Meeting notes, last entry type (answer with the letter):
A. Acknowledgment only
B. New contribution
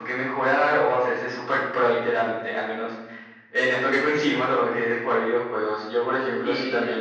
A